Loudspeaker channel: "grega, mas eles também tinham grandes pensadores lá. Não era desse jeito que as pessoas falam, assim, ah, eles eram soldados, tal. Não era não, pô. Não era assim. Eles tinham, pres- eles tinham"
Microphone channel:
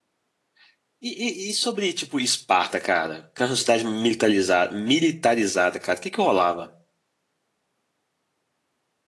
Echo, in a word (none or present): none